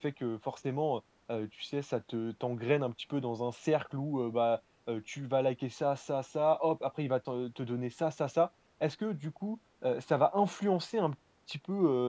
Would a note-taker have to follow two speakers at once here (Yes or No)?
No